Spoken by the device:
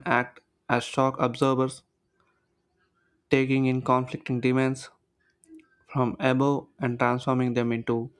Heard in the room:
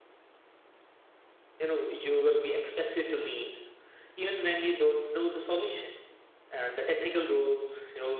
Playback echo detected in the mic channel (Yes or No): No